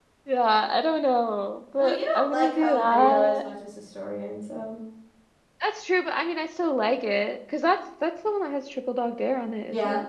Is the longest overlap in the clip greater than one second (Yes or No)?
Yes